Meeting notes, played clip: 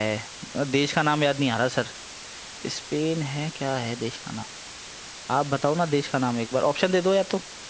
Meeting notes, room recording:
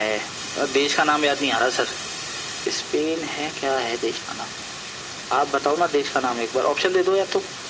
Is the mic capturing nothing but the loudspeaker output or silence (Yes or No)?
Yes